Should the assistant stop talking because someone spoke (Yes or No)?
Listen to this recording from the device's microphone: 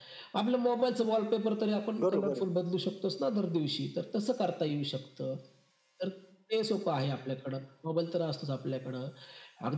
Yes